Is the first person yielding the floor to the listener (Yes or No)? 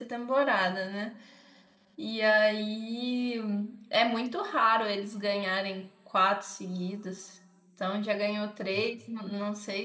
No